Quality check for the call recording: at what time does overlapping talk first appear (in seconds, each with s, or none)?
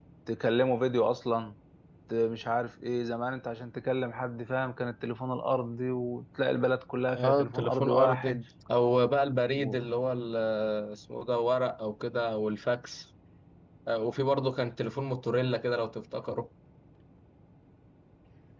7.1 s